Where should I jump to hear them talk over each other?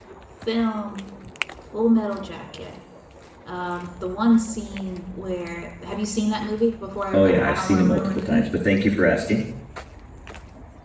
7.1 s

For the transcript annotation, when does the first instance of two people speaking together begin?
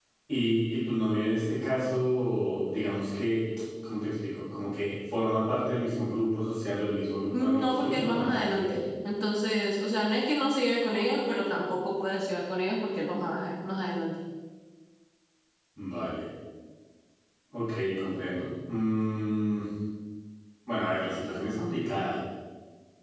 7.3 s

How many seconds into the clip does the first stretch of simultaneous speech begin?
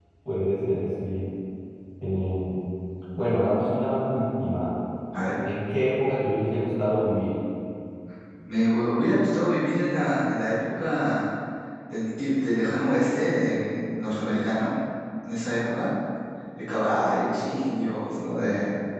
none

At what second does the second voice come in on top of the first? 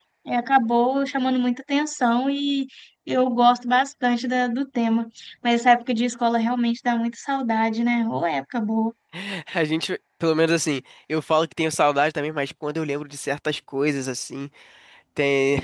none

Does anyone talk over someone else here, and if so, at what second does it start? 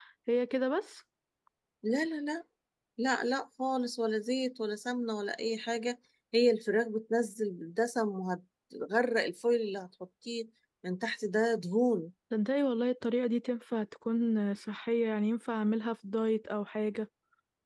none

